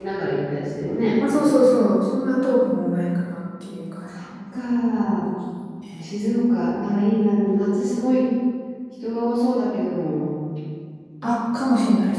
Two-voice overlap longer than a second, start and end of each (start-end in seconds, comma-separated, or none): none